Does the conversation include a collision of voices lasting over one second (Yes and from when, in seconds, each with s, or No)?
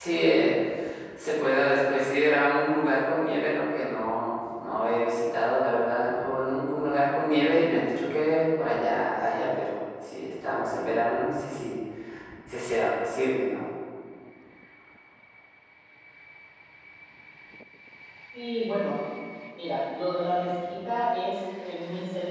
No